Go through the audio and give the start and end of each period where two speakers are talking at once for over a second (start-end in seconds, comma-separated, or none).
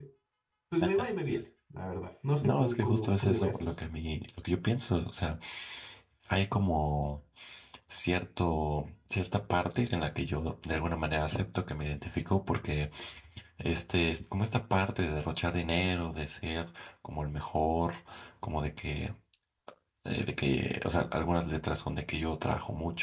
2.4-3.7